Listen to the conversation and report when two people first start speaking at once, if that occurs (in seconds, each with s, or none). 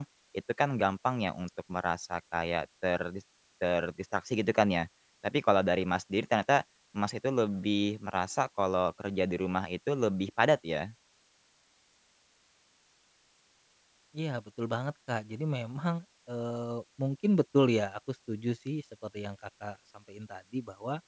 none